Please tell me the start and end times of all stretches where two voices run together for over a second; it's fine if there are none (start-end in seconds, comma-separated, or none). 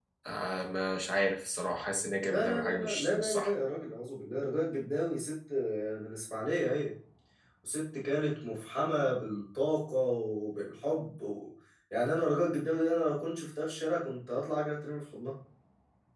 2.3-3.5